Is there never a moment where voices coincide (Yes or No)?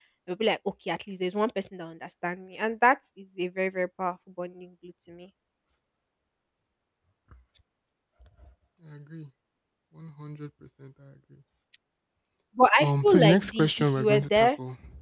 No